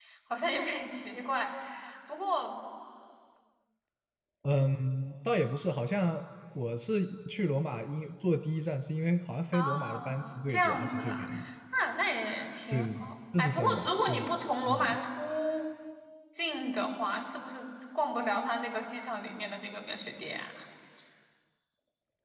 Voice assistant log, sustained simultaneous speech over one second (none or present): present